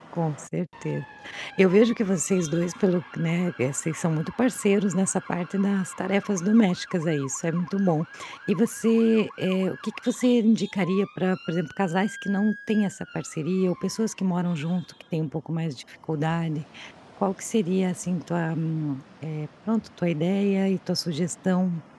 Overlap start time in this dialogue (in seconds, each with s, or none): none